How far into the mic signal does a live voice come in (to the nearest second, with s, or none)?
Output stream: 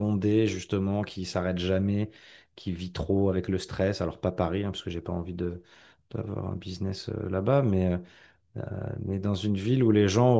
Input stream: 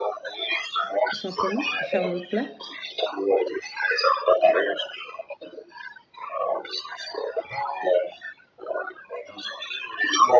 1 s